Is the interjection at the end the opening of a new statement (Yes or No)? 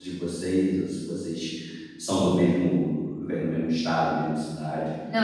Yes